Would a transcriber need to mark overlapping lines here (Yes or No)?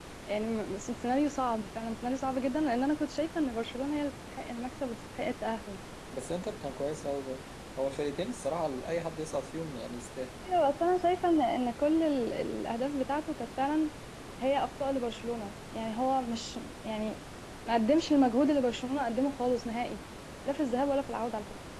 No